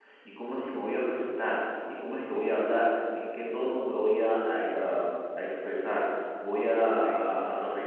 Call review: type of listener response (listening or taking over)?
listening